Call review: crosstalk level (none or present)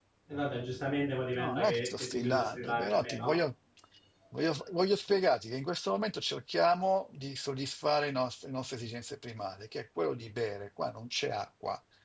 present